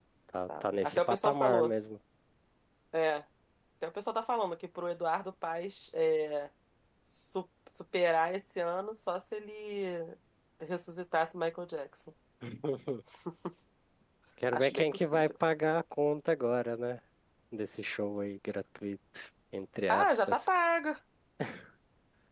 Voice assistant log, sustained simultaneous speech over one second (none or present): present